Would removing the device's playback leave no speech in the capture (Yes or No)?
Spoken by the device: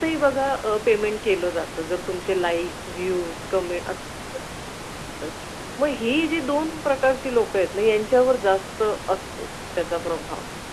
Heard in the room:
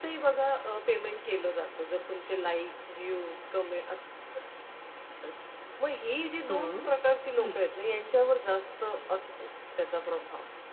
No